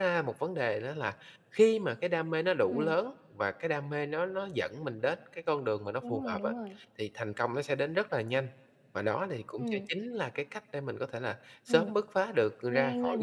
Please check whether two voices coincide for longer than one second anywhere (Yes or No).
No